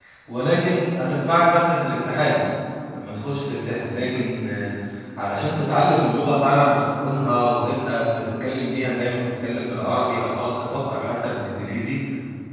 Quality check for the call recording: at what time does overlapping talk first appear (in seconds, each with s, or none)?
none